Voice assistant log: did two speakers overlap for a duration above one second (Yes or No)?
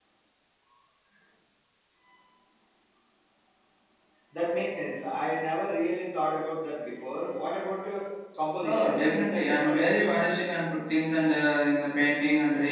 Yes